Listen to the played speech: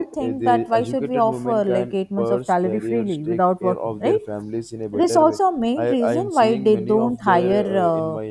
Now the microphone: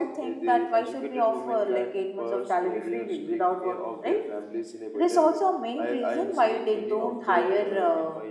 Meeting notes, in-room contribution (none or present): none